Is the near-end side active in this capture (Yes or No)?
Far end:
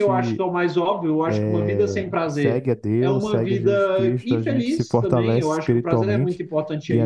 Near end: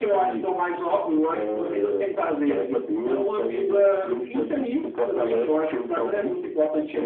No